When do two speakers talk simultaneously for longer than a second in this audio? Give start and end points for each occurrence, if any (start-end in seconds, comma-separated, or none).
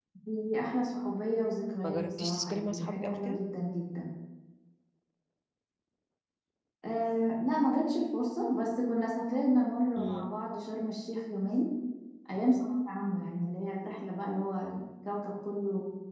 1.8-3.4